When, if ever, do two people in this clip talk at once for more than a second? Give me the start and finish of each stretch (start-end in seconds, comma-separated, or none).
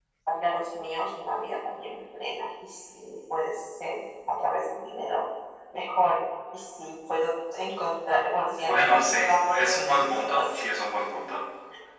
8.6-10.6